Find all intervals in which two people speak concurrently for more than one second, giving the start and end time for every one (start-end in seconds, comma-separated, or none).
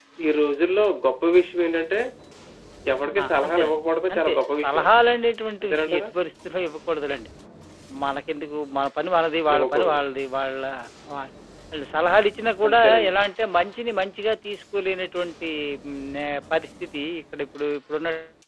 3.2-4.8